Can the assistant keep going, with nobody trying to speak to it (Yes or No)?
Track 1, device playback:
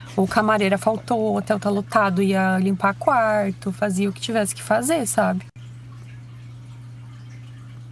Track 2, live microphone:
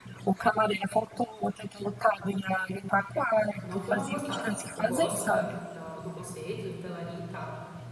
No